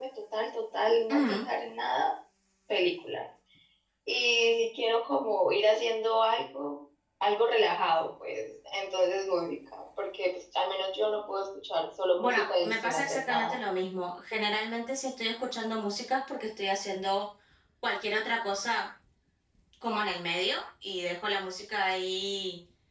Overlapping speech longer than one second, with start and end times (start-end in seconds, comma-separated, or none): 12.2-13.6